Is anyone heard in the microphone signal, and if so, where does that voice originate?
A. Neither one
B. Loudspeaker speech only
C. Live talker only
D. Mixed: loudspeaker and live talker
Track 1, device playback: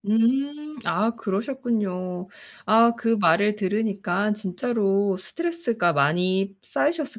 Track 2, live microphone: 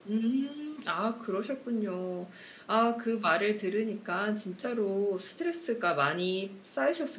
B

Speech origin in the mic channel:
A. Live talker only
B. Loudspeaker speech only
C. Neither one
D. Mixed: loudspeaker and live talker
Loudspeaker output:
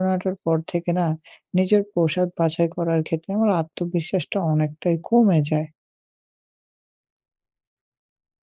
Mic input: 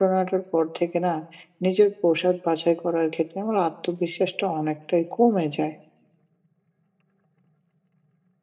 B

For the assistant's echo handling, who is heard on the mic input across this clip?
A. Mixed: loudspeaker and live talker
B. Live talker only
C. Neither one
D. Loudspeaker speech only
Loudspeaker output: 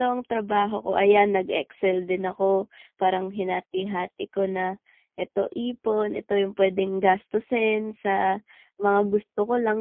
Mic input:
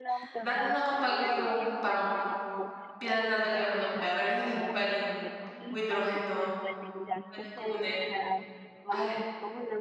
A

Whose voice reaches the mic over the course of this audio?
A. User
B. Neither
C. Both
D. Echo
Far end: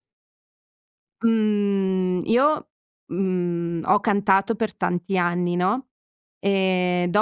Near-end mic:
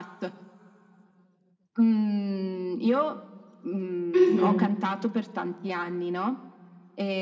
C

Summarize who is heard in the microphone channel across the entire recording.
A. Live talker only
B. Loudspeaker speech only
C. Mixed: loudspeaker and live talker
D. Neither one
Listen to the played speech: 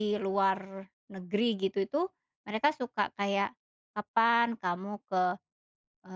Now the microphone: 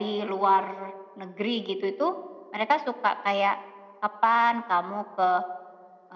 B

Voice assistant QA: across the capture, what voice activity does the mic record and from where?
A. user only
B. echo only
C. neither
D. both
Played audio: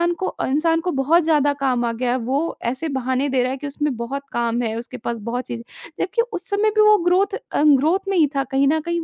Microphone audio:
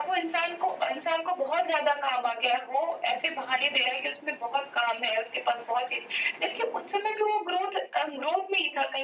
B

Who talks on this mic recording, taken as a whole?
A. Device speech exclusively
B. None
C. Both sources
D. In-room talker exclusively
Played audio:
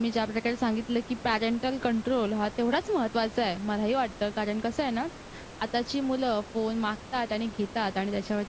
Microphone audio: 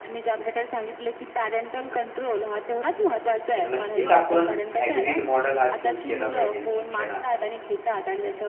C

